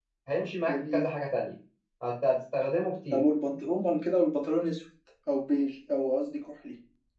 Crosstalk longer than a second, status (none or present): none